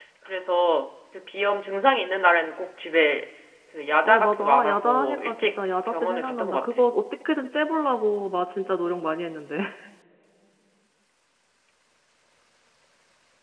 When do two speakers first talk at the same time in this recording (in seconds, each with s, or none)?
4.0 s